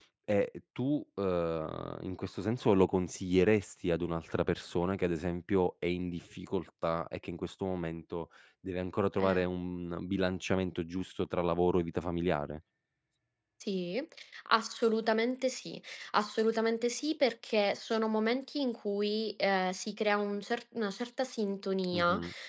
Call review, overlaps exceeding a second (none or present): none